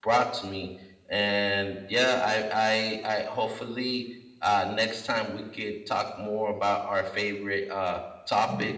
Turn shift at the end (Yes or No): No